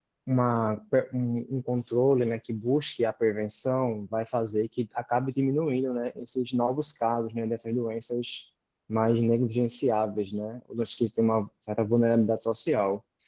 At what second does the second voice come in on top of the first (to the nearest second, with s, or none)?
none